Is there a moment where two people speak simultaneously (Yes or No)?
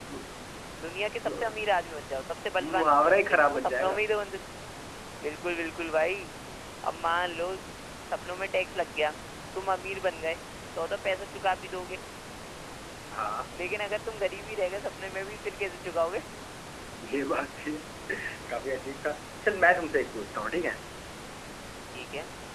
Yes